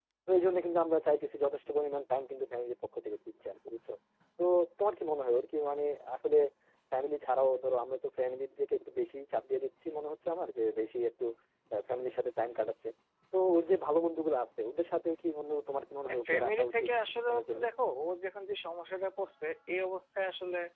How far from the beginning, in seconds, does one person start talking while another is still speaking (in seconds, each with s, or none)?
16.1 s